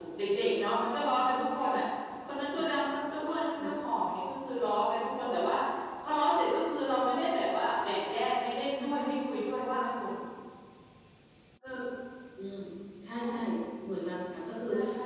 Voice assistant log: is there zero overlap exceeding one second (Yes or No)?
Yes